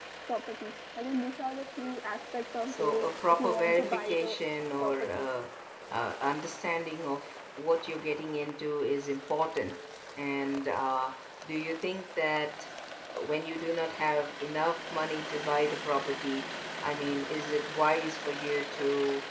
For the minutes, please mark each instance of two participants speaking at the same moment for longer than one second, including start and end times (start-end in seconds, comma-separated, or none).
2.7-4.4